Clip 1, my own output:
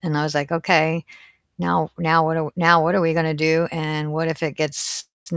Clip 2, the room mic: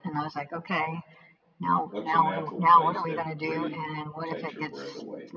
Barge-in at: 2 s

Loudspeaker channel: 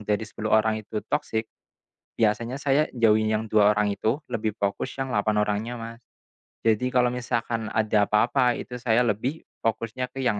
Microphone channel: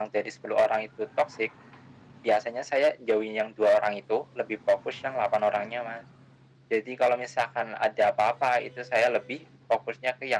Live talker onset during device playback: none

